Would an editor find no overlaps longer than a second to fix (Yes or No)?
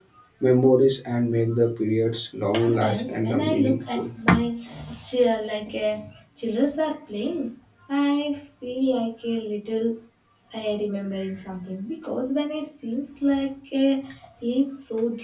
No